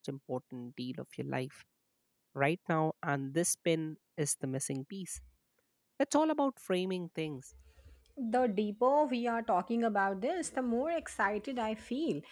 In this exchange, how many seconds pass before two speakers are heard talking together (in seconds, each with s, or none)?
none